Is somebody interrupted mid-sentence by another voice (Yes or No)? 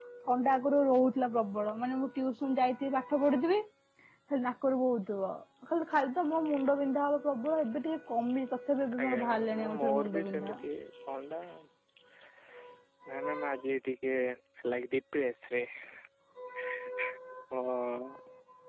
Yes